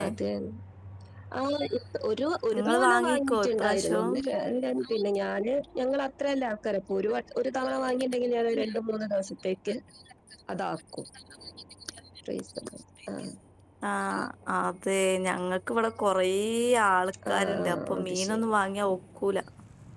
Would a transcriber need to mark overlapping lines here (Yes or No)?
Yes